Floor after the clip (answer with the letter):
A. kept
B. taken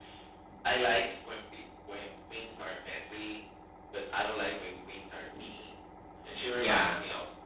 A